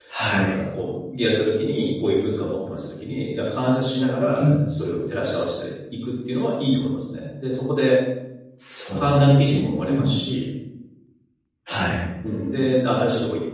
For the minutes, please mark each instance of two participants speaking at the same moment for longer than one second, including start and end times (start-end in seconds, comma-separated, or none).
8.9-10.1